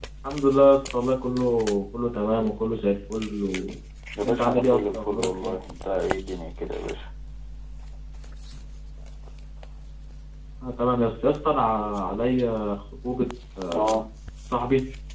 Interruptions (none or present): present